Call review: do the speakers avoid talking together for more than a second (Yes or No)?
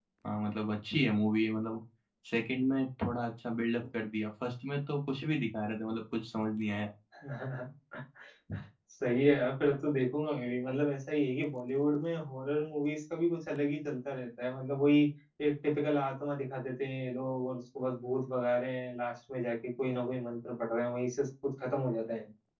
Yes